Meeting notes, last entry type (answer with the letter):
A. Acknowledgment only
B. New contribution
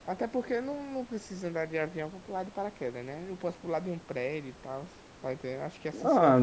B